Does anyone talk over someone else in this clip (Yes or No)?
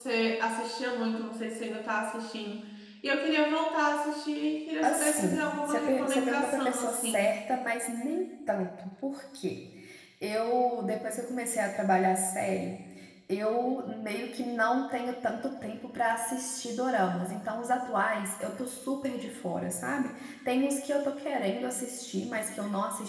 Yes